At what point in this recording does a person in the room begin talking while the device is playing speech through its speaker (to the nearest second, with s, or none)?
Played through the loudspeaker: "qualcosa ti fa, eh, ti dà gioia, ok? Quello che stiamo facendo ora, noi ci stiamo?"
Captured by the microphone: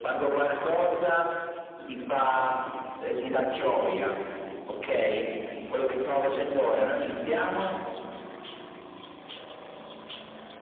none